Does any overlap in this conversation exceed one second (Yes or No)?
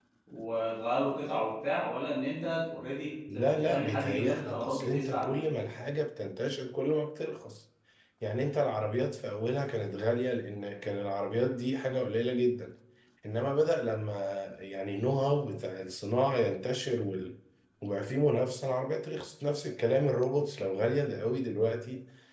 Yes